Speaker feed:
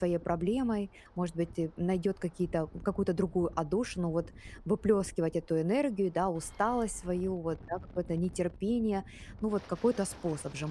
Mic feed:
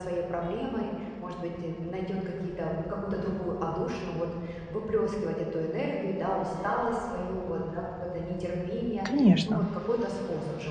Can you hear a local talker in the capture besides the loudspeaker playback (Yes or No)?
Yes